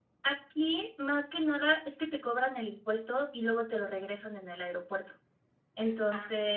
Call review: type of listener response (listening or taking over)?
listening